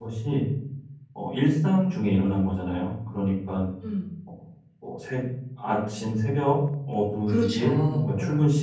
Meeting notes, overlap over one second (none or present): present